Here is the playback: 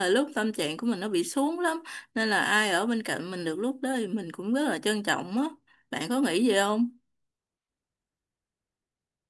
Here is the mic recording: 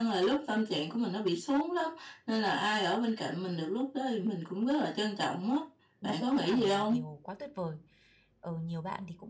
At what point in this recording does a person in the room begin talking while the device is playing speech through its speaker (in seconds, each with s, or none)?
6.0 s